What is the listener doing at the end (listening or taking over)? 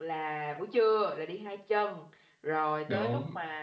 listening